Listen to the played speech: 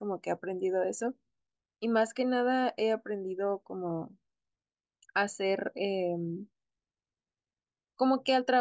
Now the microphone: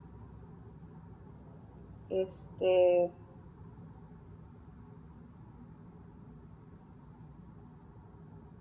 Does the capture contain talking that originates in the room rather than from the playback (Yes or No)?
Yes